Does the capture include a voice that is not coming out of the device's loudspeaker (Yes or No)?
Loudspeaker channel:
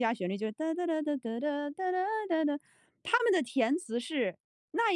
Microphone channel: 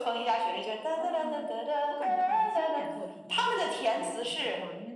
Yes